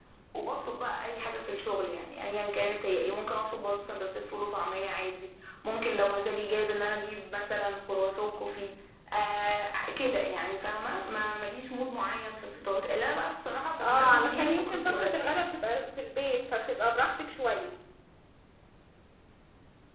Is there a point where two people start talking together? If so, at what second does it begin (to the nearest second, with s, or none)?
14 s